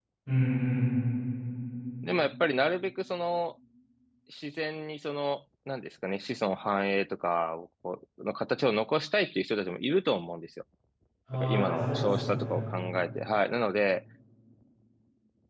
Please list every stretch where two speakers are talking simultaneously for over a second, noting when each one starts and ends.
11.3-12.6

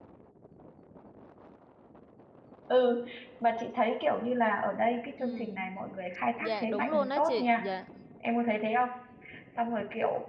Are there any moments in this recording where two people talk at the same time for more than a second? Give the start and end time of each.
6.4-7.6

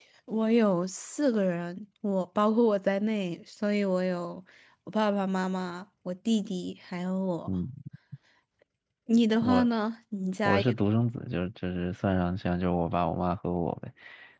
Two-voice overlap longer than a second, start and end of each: none

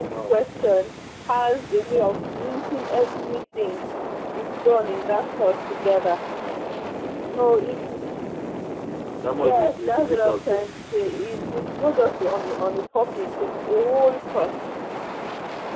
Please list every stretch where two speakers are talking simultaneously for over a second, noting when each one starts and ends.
9.4-10.7

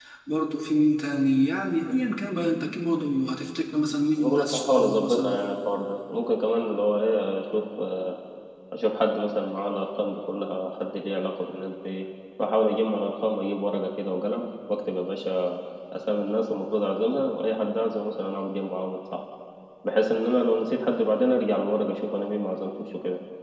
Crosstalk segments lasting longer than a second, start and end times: 4.2-5.4

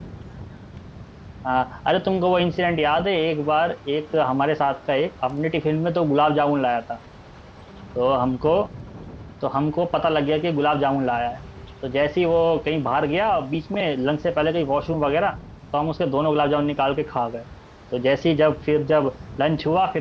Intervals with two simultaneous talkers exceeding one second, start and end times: none

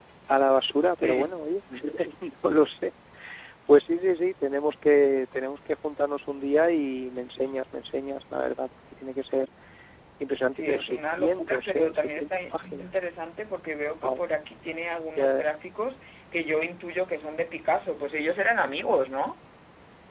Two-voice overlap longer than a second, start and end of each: 10.5-12.9

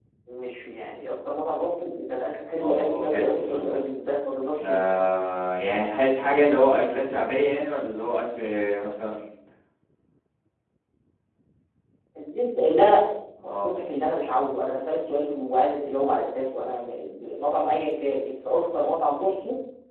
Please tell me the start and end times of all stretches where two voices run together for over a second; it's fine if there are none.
2.6-3.8

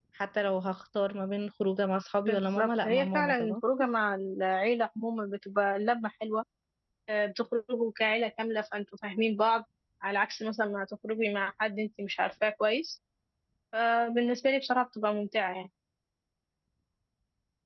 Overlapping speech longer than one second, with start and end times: 2.3-3.6

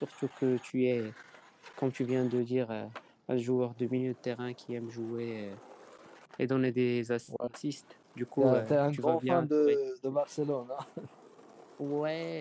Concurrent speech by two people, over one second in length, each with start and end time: 8.4-9.8

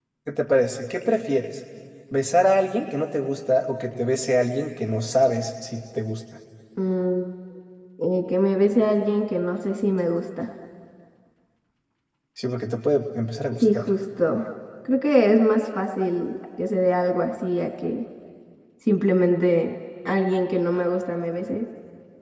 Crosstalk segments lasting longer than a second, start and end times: none

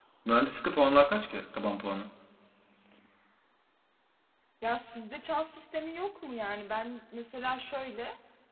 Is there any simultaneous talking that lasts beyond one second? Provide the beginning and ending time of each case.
none

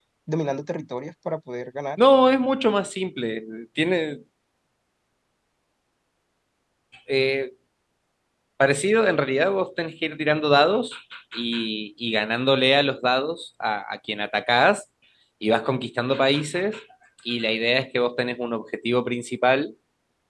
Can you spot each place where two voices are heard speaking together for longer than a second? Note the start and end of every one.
none

